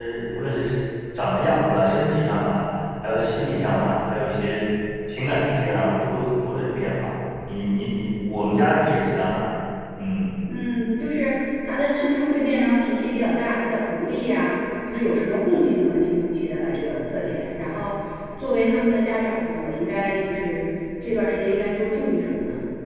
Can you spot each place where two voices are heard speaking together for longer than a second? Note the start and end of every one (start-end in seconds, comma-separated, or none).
none